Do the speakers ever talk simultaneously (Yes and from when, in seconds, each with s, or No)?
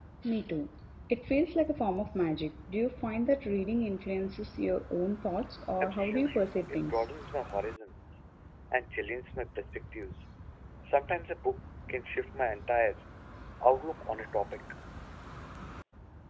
Yes, from 5.8 s